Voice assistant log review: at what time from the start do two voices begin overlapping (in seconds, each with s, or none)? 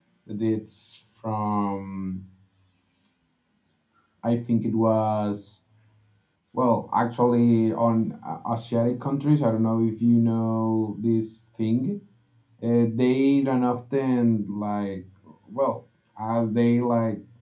none